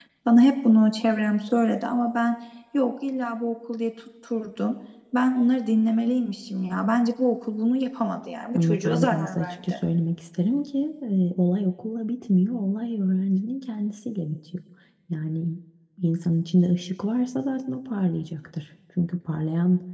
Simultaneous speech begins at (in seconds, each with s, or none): 8.5 s